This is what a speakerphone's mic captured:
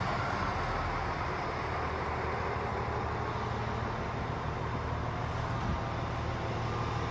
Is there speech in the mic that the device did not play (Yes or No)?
No